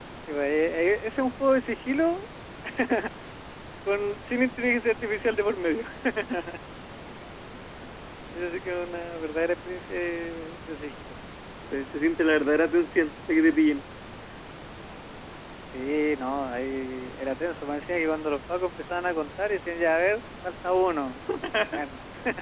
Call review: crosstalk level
none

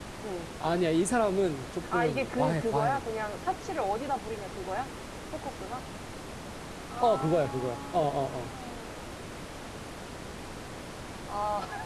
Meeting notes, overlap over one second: present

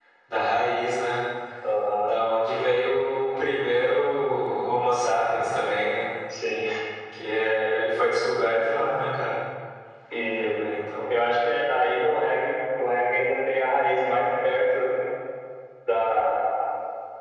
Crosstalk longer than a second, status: none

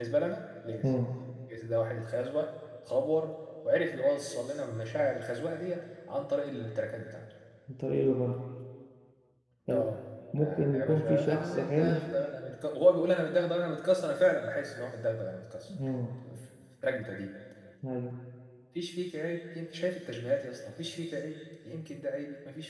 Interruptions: present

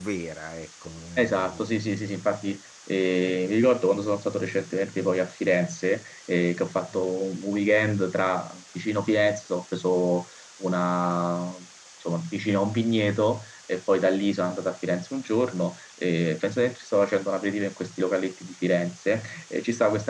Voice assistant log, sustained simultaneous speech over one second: none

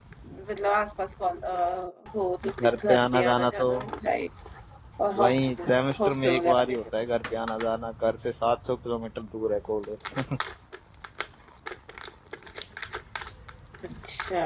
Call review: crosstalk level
present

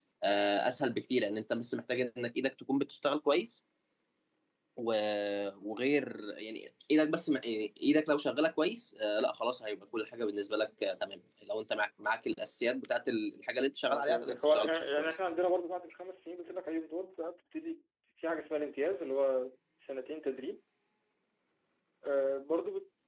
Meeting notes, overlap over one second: present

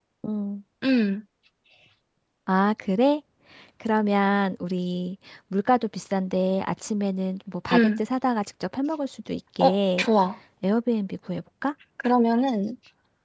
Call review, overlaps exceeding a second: none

